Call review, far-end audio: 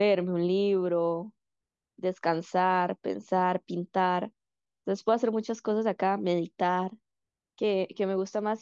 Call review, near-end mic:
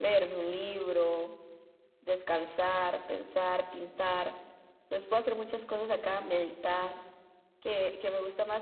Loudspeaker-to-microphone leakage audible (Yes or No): Yes